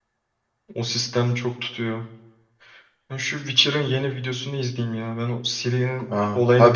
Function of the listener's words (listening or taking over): taking over